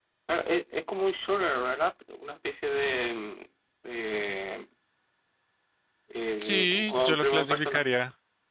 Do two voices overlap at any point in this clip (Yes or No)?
Yes